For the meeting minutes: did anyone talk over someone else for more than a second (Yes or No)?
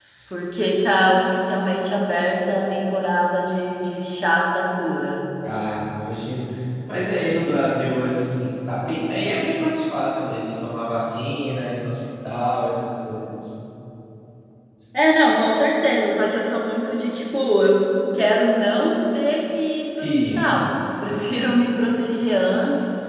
No